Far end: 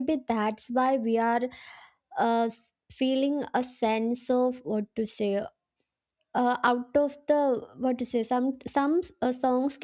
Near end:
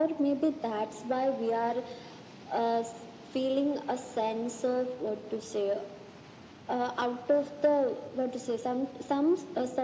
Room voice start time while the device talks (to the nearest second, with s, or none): none